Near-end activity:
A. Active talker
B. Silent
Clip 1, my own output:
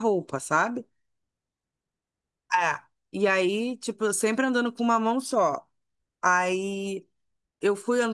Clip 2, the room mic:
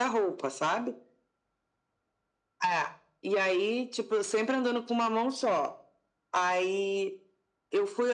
B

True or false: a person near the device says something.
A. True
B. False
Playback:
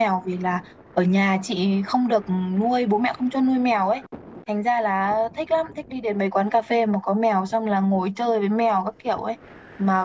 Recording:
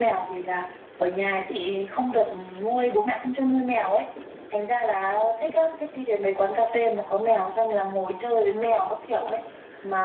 B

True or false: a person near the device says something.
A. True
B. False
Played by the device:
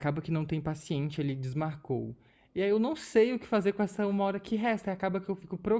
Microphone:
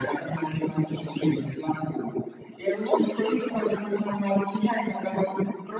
B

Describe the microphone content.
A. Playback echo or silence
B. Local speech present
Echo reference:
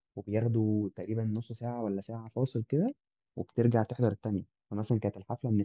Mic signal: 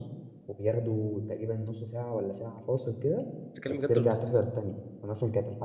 B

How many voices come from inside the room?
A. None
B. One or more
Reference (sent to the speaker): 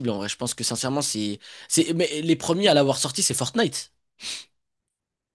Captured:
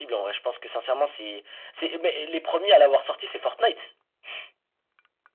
A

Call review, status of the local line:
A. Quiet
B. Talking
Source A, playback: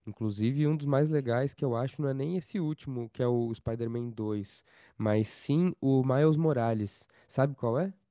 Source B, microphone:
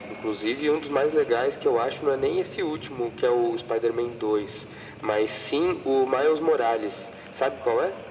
A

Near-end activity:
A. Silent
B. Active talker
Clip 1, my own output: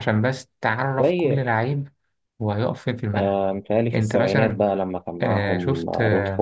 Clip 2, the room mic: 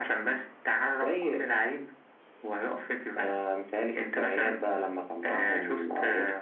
A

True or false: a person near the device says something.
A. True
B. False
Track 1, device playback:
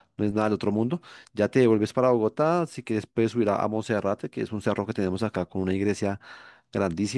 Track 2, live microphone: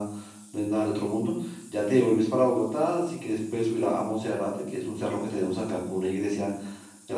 B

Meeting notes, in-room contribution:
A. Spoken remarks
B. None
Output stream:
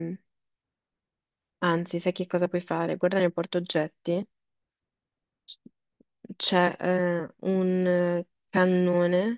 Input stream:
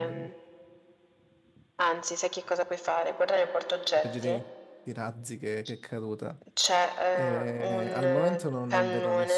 A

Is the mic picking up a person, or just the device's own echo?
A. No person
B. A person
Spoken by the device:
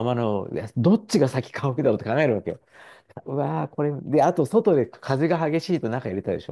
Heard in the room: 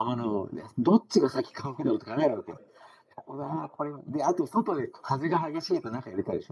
A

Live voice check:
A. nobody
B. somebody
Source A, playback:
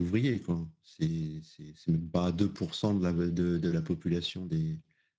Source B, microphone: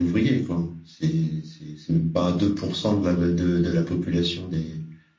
A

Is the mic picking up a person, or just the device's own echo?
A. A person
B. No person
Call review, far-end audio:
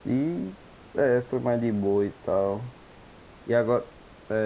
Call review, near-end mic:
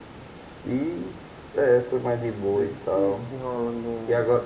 A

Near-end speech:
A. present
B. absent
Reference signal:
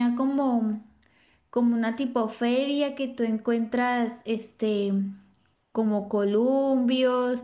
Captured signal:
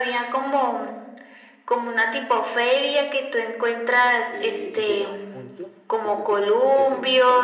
A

